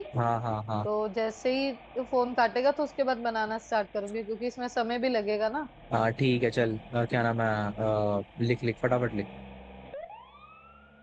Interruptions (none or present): none